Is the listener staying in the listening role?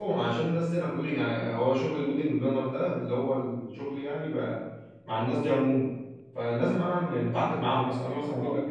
Yes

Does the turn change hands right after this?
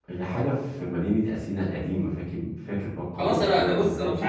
Yes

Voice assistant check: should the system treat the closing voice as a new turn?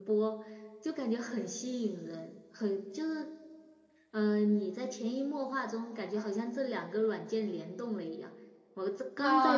Yes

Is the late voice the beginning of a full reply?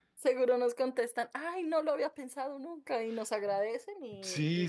Yes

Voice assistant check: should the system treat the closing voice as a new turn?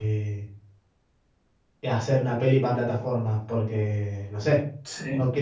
Yes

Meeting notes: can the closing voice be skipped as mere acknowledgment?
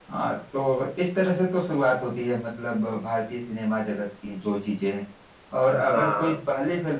Yes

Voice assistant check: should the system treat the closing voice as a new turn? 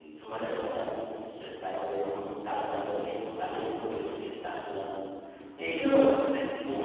No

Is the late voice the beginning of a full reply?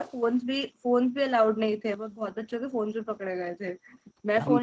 No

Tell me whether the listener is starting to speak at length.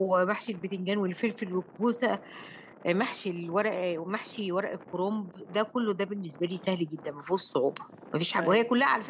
No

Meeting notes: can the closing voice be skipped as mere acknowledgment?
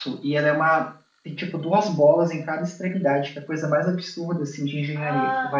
No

